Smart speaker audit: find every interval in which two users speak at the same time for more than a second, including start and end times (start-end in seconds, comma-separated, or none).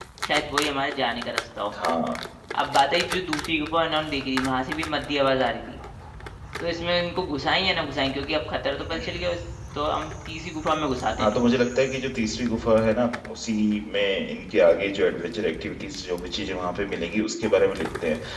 none